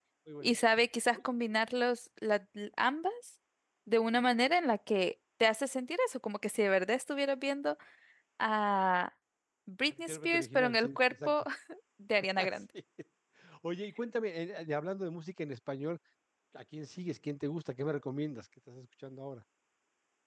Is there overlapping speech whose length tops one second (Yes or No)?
Yes